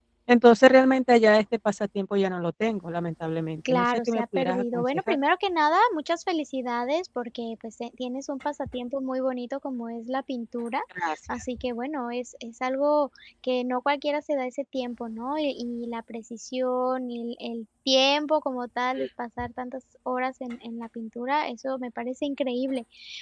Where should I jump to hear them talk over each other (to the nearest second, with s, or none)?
4 s